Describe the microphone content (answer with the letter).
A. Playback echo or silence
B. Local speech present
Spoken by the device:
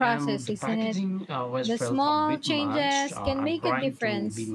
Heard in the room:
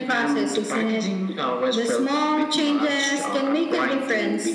A